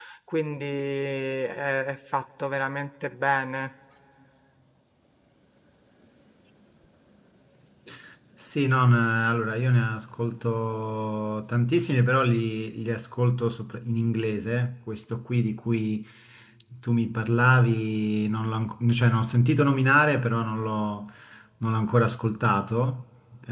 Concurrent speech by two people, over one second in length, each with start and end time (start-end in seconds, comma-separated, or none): none